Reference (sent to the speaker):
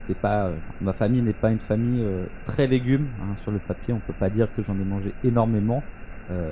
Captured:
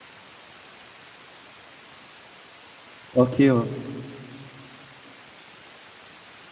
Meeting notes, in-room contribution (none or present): present